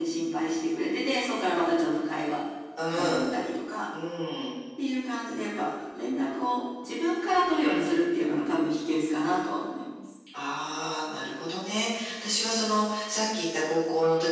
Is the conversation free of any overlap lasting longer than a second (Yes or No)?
Yes